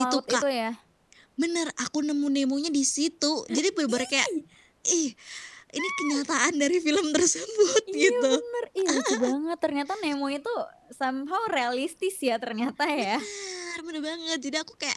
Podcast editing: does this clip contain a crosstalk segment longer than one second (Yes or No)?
No